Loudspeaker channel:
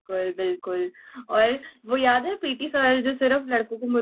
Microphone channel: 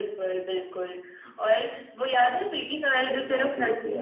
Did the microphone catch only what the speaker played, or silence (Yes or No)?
No